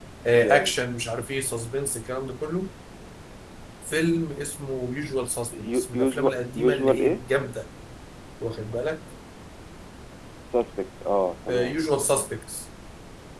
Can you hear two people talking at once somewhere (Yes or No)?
Yes